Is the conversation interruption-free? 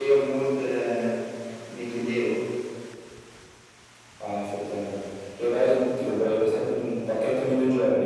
Yes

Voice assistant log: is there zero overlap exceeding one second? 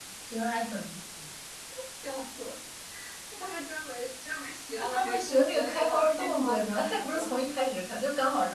No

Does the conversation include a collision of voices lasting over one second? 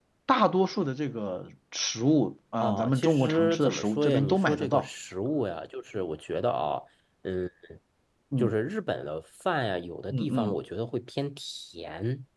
Yes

